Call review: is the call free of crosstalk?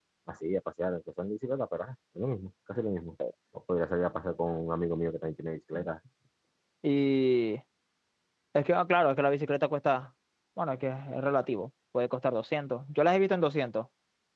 Yes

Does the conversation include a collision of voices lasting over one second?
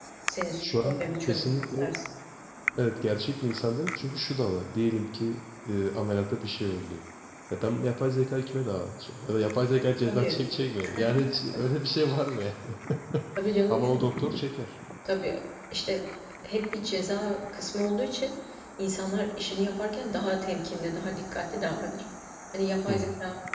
Yes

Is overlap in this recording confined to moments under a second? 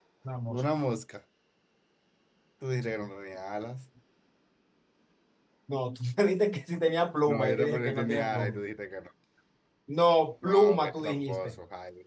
No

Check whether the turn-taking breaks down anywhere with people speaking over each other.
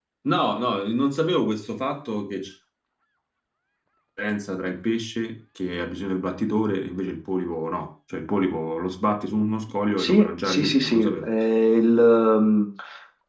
Yes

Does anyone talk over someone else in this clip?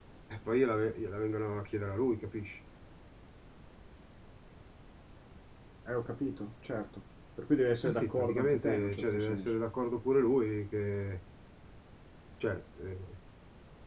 Yes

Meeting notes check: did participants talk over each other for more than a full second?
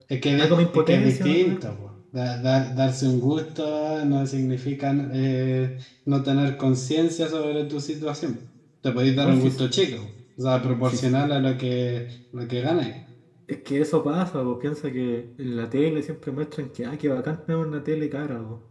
Yes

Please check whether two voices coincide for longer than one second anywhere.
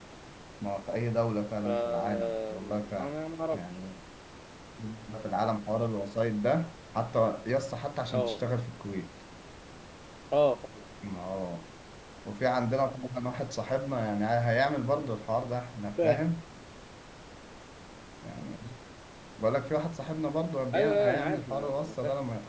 Yes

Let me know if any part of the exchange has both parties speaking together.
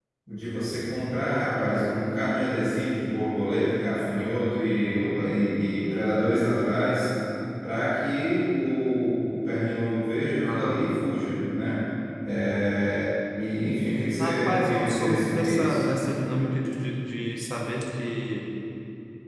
Yes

